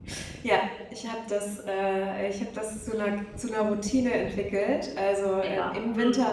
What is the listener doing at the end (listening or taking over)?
listening